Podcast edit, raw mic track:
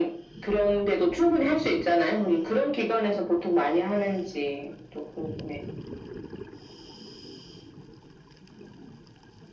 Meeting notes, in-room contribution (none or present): none